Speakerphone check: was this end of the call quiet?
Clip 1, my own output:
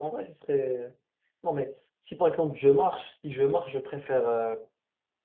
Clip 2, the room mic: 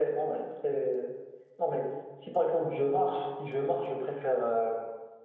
Yes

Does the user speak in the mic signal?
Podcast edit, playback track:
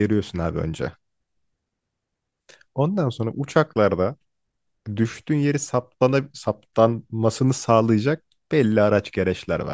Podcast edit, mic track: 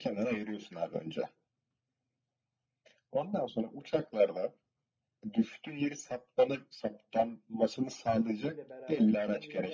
Yes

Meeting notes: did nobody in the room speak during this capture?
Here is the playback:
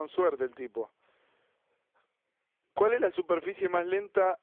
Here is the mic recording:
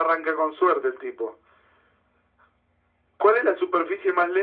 Yes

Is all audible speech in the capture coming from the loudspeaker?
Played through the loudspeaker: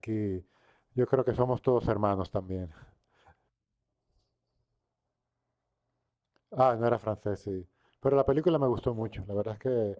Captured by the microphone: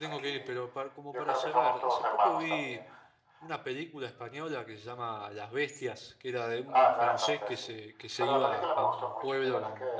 No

